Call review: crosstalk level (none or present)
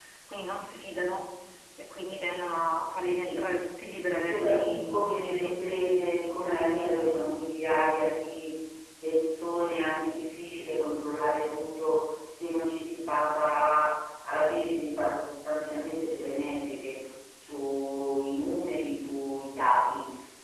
present